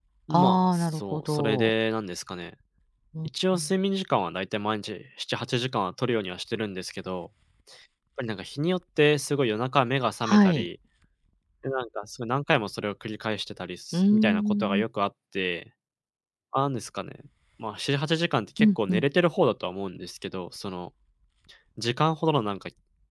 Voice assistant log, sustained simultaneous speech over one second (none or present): present